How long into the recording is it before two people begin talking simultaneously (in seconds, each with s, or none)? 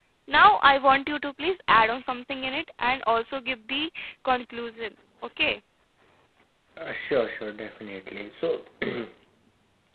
none